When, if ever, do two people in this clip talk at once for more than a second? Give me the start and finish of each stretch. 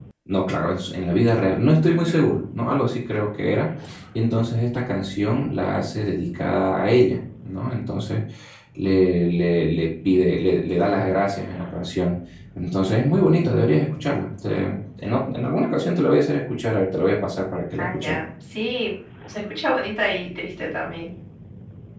none

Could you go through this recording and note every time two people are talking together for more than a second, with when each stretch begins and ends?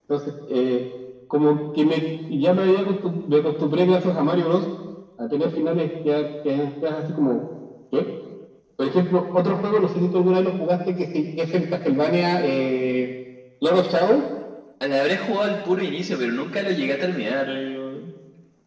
none

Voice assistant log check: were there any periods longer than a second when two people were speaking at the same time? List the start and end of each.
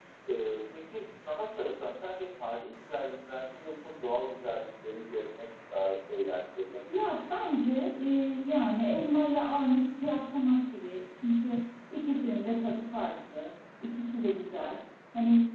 none

